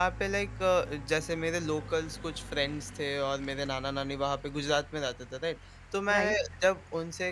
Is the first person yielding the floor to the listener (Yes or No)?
No